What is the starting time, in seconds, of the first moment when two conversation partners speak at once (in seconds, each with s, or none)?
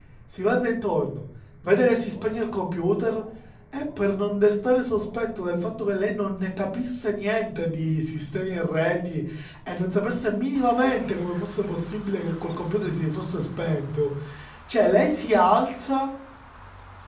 none